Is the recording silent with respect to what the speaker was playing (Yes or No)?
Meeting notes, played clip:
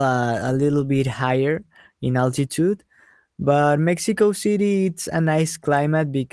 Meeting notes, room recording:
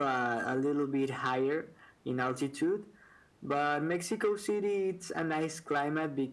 No